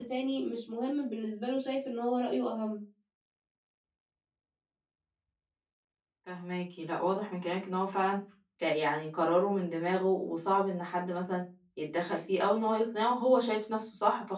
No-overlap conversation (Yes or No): Yes